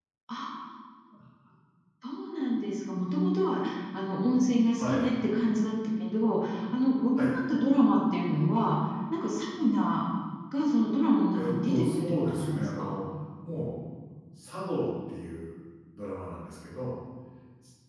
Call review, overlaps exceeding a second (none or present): present